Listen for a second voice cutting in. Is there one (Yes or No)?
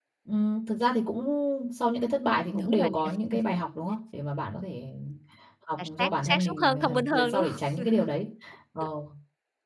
Yes